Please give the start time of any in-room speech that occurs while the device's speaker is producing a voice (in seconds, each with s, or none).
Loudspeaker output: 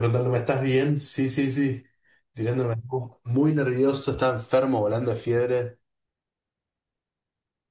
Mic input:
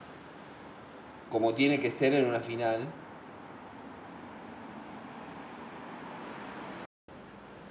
1.3 s